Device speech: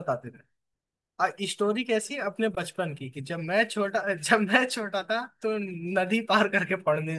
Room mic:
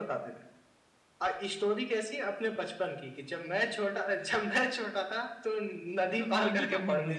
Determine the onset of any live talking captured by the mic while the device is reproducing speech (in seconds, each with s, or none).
6.1 s